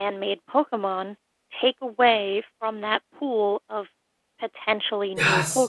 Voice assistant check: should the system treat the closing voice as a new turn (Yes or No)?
Yes